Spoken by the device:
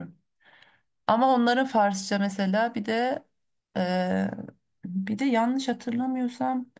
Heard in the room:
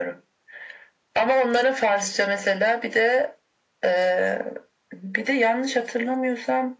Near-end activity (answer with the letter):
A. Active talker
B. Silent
B